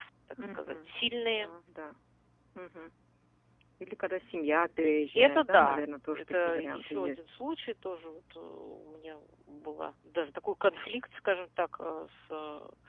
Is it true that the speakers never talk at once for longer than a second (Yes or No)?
No